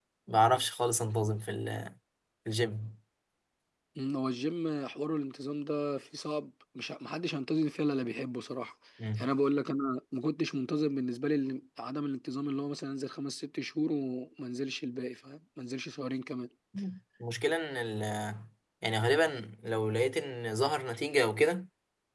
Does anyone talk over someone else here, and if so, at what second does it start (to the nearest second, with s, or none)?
none